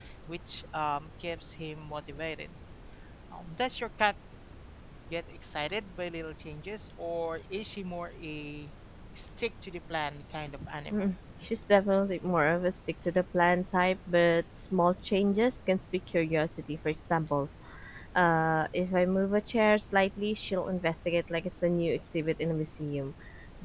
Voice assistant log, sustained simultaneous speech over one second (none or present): none